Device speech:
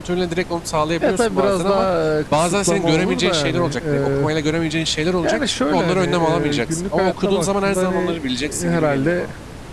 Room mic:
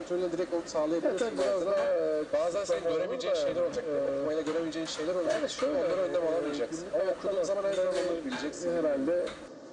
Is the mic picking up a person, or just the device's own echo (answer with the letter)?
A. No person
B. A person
A